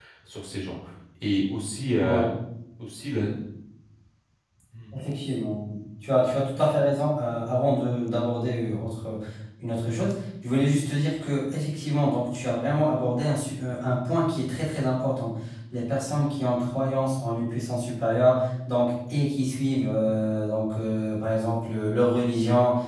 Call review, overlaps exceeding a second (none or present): none